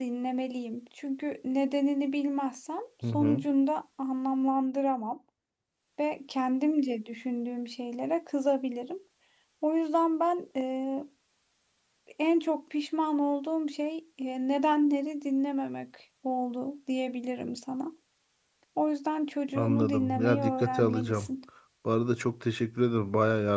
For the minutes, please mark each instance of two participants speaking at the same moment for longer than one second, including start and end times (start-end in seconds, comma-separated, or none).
19.6-21.3